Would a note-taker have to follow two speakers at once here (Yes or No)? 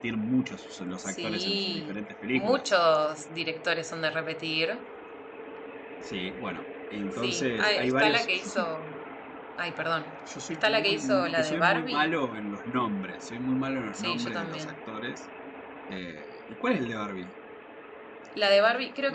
Yes